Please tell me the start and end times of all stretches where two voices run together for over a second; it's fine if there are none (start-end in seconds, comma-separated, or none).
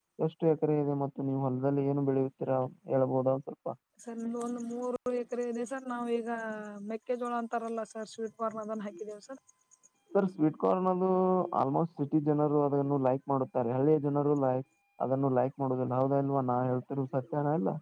none